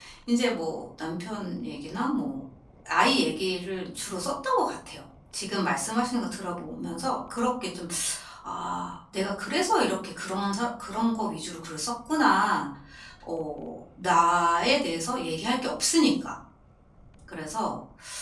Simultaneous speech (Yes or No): No